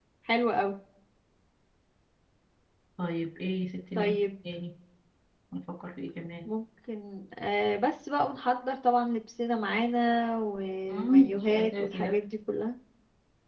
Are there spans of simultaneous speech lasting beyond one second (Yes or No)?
Yes